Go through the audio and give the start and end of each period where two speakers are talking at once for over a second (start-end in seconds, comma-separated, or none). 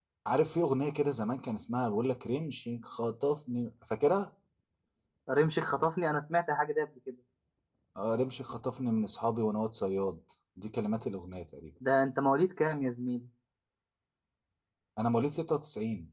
none